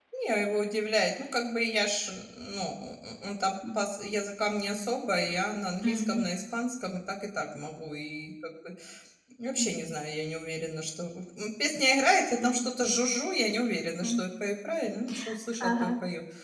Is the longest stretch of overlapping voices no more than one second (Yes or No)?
Yes